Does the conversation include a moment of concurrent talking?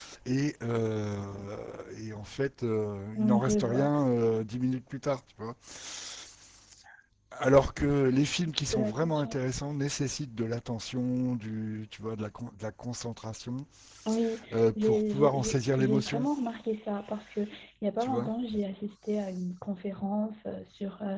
Yes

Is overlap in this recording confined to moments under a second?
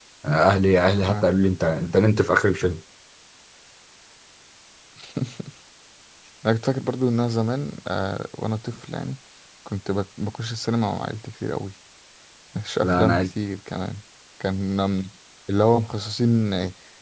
Yes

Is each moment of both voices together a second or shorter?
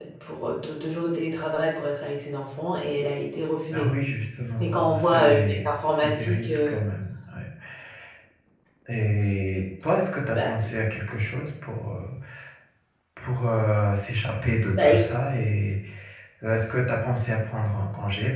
No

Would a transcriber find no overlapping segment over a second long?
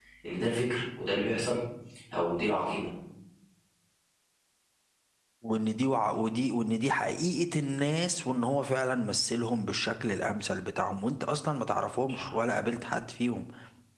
Yes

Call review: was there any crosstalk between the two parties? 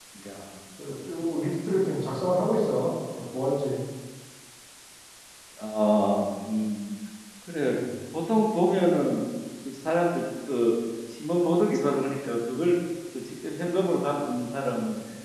No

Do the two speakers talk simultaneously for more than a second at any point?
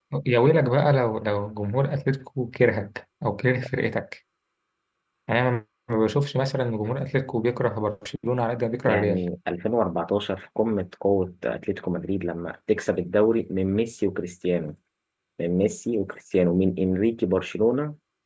No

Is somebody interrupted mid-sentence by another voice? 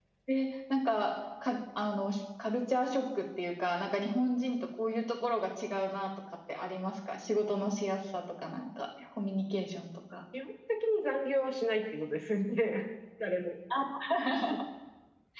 No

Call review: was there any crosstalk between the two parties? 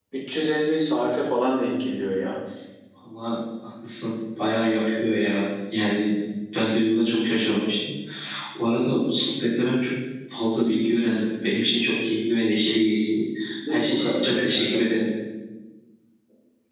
Yes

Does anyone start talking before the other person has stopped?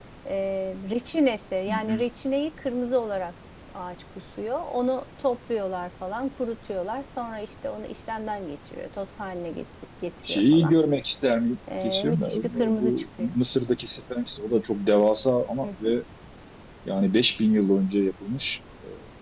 Yes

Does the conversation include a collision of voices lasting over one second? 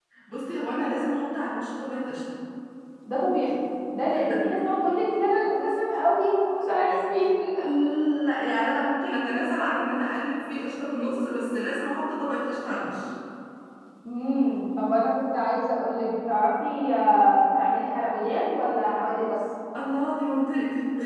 No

